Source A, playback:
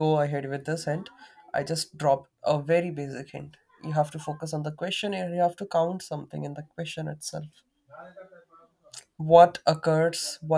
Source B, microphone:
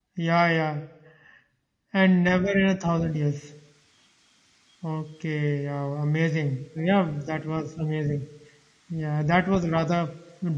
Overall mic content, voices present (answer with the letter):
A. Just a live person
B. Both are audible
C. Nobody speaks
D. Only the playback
A